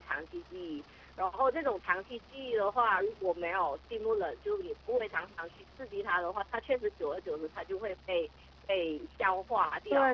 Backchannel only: No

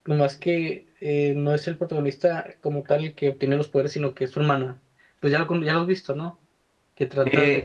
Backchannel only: No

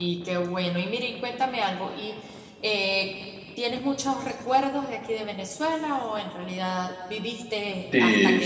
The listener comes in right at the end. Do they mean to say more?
Yes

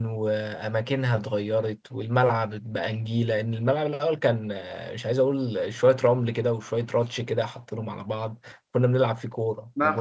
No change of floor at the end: No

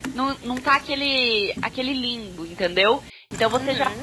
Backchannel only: Yes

